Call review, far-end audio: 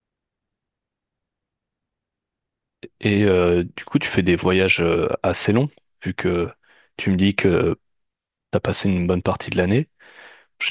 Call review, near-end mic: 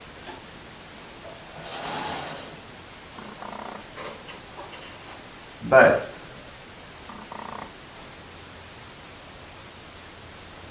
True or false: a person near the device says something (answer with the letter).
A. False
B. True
B